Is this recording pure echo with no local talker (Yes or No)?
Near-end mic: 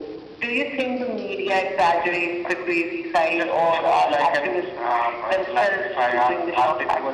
Yes